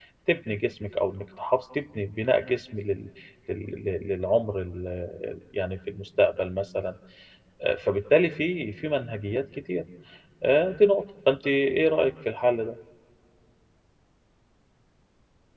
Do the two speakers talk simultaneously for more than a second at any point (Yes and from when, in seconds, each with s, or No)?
No